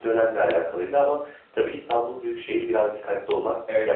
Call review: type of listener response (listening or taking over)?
taking over